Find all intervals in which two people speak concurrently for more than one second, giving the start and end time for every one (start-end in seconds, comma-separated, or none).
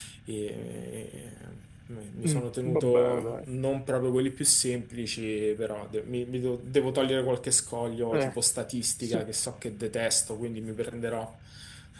2.2-3.5